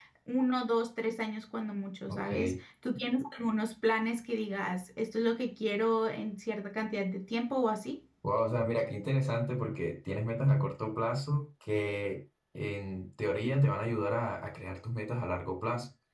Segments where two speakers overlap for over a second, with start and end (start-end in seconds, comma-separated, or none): none